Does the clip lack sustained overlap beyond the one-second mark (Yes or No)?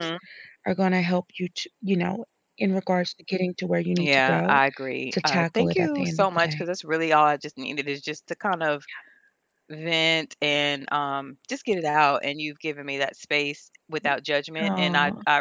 No